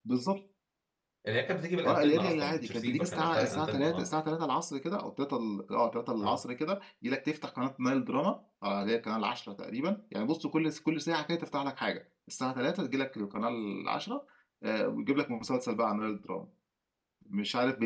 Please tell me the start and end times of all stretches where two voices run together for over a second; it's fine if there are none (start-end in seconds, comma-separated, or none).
1.9-4.1